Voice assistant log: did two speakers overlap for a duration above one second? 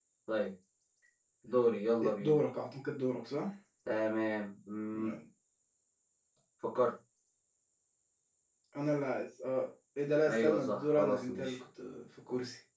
Yes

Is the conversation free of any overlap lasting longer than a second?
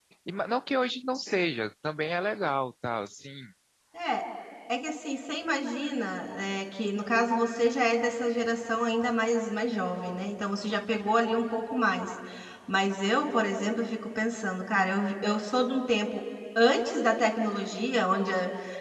Yes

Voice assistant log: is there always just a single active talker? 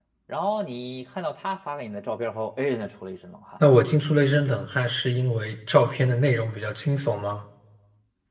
Yes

